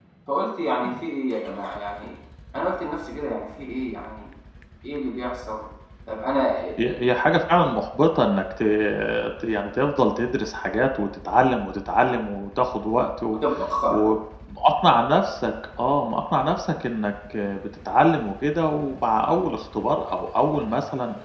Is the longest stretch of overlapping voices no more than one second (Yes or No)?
Yes